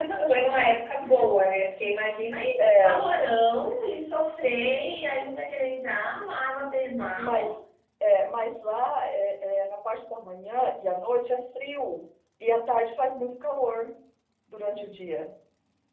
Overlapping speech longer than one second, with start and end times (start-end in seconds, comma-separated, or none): none